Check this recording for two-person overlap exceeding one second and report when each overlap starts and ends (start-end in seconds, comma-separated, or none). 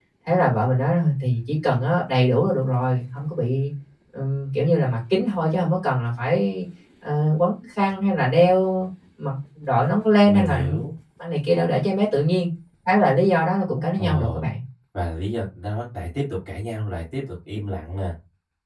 none